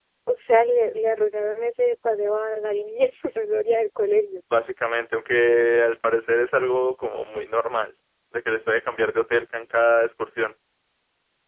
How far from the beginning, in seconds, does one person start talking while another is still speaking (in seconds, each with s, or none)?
none